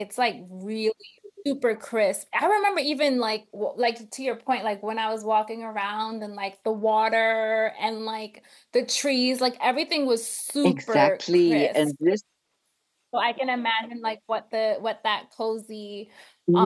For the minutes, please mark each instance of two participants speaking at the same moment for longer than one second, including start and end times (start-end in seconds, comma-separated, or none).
10.6-11.9